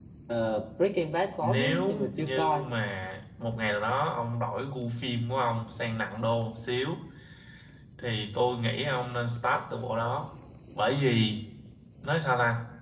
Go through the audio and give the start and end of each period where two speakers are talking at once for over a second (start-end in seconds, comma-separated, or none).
1.4-2.7